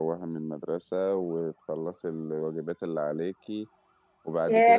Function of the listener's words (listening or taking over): taking over